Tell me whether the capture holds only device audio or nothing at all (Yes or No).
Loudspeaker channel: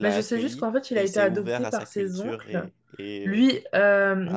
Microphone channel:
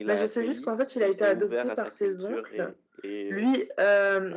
Yes